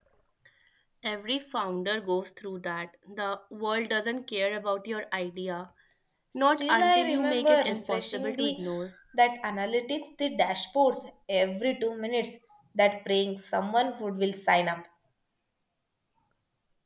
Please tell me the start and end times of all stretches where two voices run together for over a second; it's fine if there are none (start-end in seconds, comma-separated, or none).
6.4-8.6